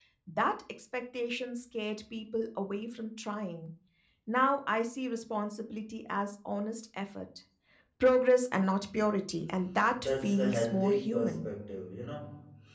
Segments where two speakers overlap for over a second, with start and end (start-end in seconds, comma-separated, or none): 10.0-11.5